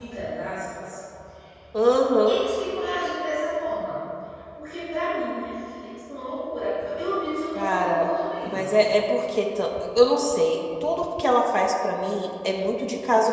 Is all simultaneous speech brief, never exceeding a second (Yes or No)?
Yes